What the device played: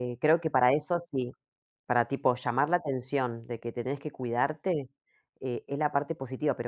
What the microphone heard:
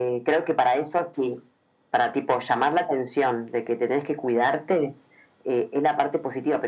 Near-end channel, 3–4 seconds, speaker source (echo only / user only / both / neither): echo only